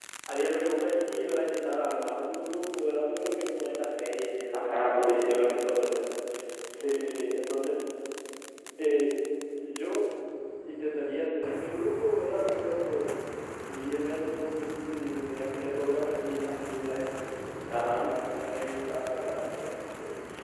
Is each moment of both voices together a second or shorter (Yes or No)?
No